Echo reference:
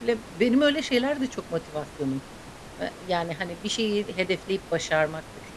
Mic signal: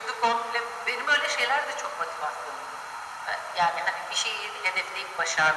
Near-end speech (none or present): none